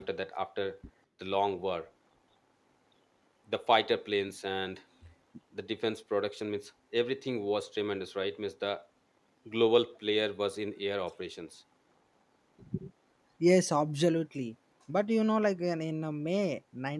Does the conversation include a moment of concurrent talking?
No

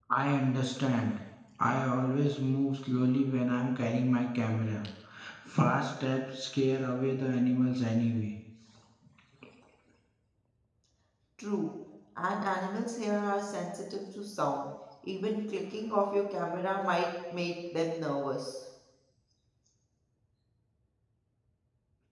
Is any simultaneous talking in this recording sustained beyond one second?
No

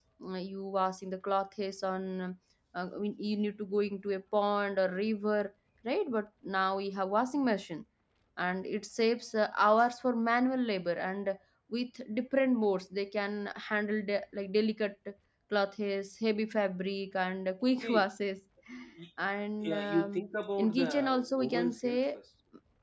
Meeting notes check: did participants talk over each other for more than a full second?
Yes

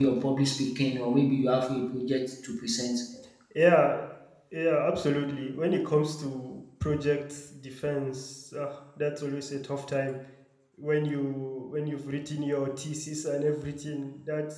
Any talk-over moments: No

